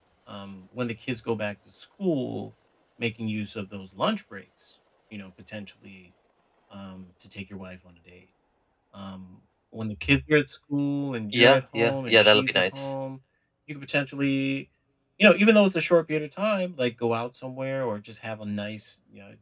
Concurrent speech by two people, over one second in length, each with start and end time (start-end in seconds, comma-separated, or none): 11.3-12.9